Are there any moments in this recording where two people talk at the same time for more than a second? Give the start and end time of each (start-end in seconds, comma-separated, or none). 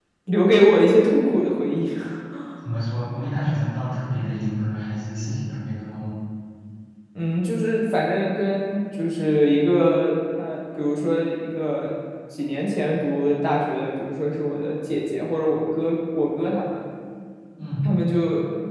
none